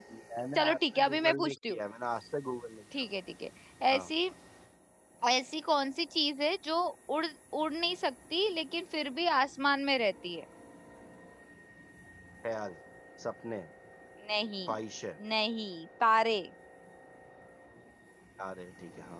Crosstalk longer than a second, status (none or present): present